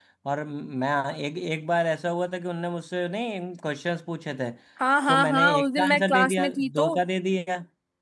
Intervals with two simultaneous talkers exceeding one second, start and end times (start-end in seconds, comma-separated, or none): 5.1-6.9